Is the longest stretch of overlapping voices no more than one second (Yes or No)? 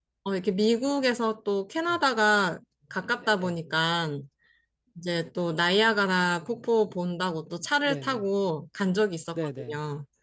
Yes